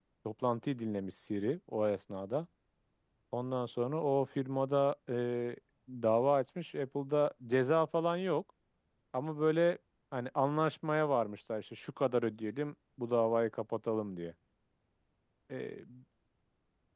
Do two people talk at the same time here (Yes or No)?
No